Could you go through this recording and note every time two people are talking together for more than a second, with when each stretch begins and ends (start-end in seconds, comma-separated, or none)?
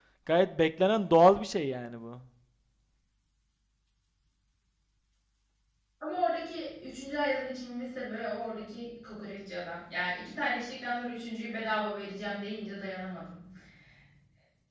none